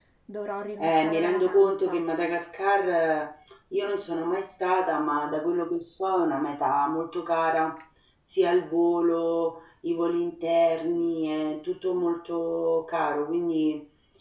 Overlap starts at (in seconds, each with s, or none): 0.8 s